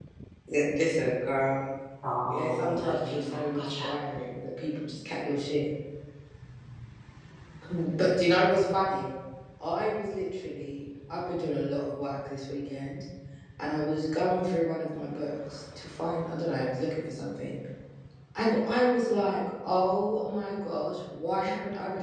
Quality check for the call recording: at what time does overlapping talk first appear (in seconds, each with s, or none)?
2.3 s